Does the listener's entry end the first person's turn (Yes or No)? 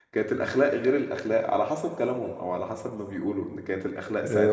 Yes